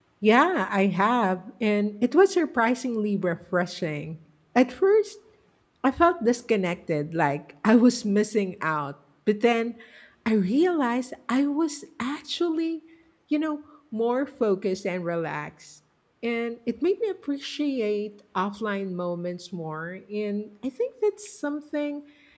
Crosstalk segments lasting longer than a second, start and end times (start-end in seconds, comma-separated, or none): none